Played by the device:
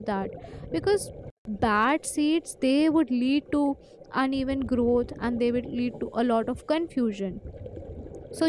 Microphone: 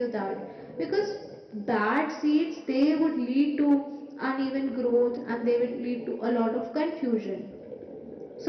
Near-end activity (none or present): none